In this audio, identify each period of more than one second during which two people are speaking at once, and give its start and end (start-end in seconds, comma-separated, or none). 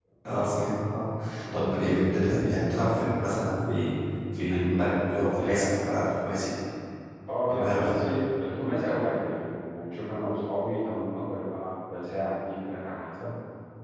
4.5-5.7